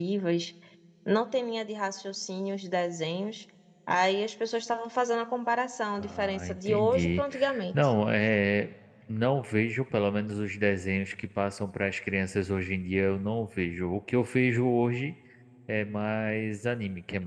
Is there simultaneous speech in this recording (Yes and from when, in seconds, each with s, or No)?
Yes, from 6.0 s